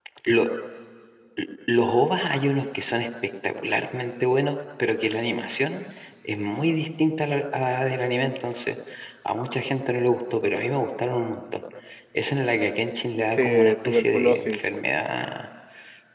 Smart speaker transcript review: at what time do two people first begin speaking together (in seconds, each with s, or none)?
13.4 s